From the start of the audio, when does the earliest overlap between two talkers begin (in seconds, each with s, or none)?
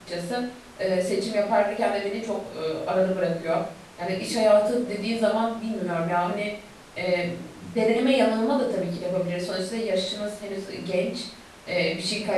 none